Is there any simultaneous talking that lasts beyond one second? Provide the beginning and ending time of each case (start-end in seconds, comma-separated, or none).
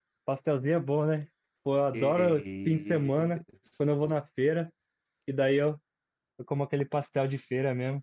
1.9-3.4